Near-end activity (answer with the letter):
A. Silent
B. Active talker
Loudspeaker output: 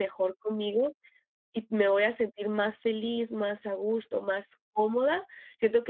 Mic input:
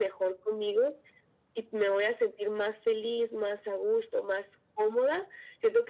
A